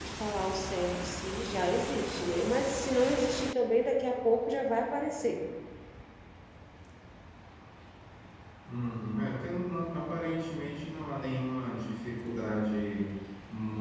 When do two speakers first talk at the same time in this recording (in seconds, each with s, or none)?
none